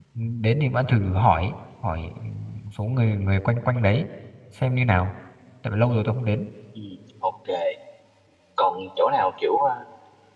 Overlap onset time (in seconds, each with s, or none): none